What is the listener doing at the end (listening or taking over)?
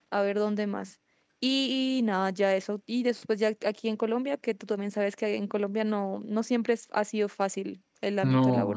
taking over